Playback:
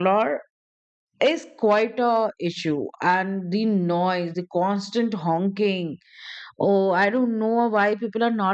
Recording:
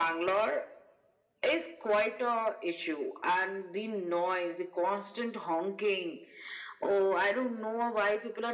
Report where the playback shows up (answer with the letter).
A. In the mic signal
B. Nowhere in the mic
A